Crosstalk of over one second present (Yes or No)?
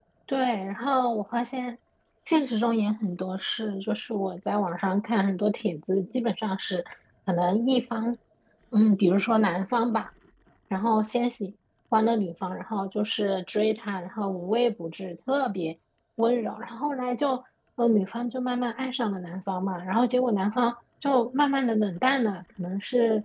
No